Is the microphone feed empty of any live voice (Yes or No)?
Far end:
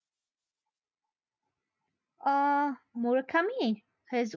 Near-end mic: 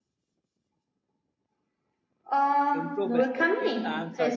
No